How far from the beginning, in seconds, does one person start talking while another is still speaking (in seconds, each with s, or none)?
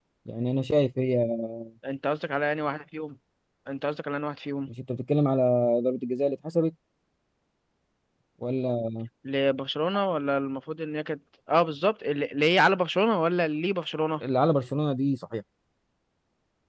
none